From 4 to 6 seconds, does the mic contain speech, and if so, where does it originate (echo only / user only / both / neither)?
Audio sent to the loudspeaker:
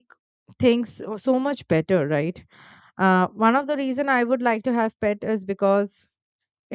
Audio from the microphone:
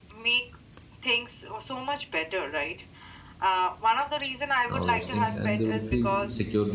both